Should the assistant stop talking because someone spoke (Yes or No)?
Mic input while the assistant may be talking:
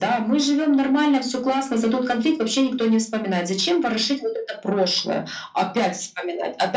No